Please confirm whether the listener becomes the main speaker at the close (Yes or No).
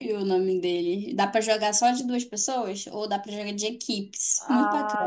Yes